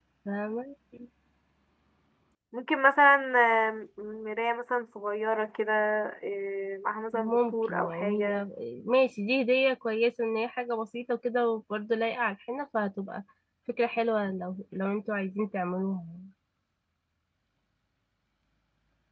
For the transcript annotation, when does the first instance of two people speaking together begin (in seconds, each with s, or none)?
7.1 s